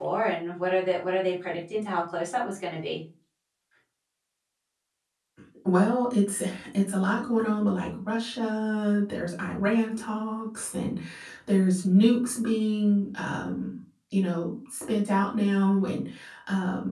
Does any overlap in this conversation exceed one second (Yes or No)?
No